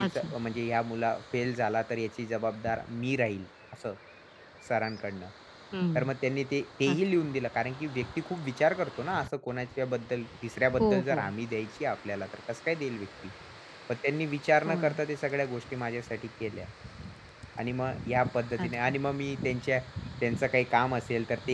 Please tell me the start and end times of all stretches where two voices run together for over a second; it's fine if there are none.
none

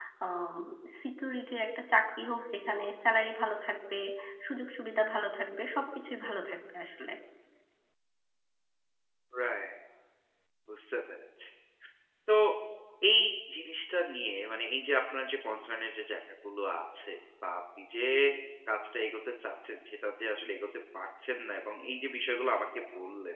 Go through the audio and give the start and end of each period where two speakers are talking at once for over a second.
none

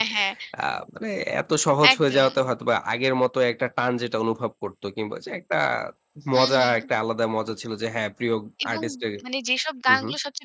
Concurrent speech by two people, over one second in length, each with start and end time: none

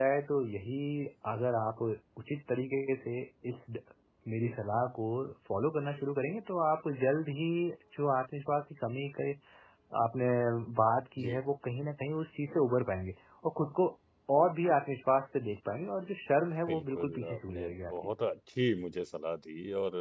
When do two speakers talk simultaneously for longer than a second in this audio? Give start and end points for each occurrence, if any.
16.7-17.9

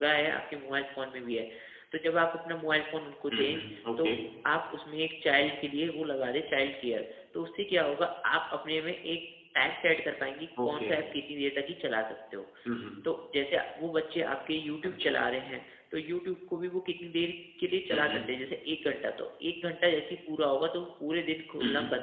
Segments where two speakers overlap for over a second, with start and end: none

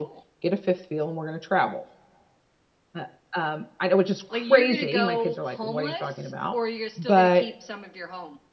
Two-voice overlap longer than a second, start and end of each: 4.3-6.5

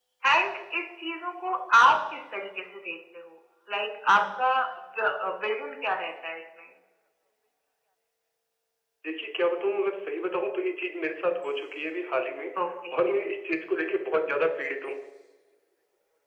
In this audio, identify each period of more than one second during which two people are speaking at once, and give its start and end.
none

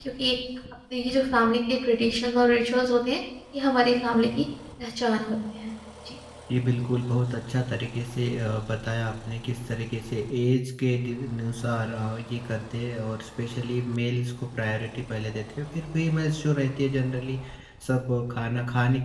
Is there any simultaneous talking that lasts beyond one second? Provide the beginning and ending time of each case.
none

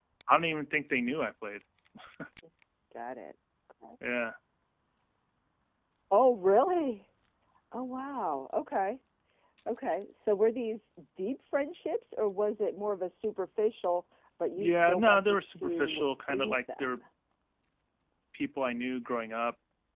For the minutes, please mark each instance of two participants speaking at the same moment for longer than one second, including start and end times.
14.6-17.0

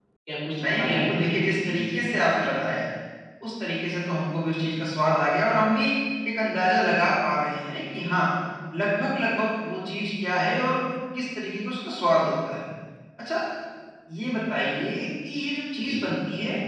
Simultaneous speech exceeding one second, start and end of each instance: 0.8-2.5

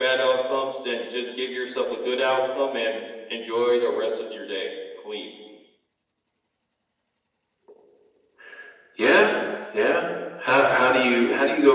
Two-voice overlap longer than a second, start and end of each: none

